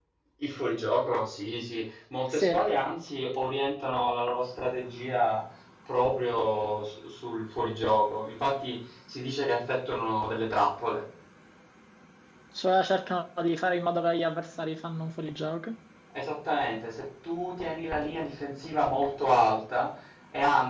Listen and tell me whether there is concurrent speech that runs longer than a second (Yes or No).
No